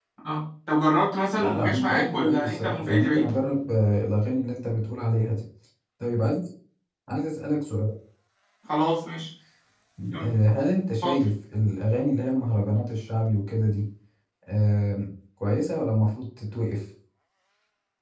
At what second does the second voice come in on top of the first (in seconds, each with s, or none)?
1.4 s